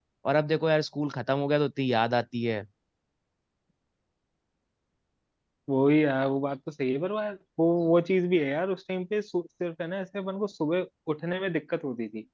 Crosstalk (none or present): none